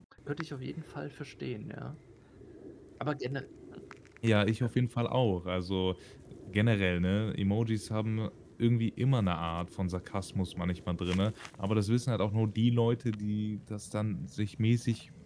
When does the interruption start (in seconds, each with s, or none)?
none